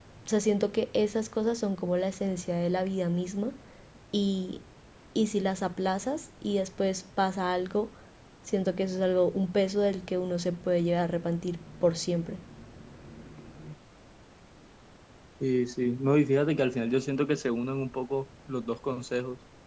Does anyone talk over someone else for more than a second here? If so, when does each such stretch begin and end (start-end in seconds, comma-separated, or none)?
none